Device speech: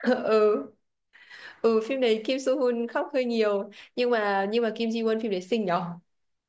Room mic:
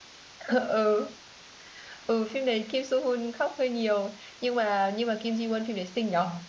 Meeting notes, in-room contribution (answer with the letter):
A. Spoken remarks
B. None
B